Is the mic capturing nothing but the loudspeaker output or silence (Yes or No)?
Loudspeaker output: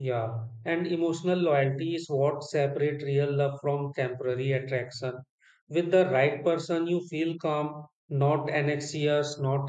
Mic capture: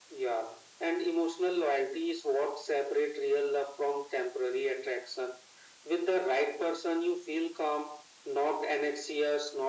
Yes